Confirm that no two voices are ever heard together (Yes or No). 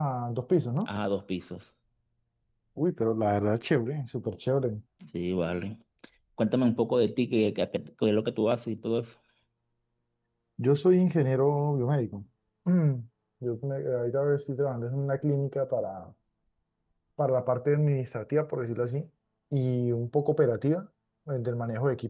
Yes